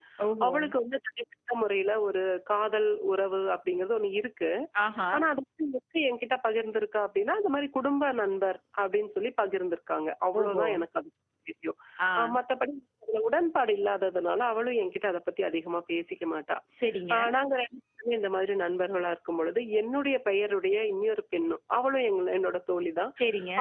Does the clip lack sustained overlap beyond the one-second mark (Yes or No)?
Yes